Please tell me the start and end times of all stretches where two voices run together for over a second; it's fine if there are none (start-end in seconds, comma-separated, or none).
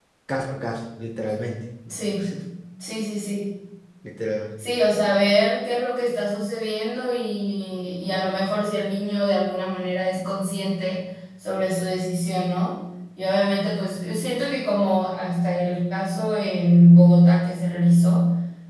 none